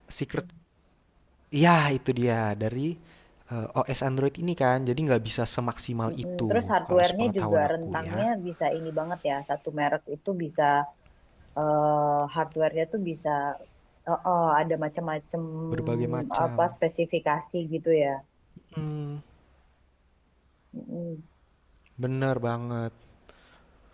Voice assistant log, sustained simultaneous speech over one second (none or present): present